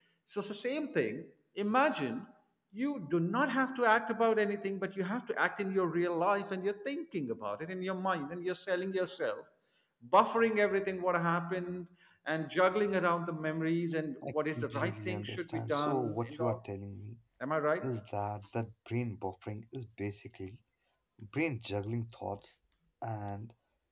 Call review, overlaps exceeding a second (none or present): present